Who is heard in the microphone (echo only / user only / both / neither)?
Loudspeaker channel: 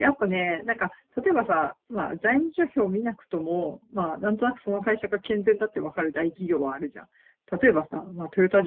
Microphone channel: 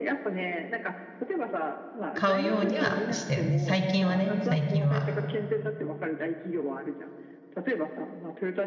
both